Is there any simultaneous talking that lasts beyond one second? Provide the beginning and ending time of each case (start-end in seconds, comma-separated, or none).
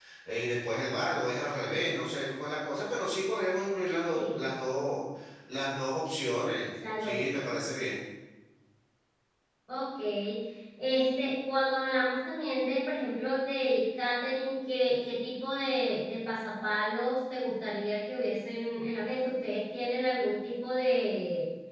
none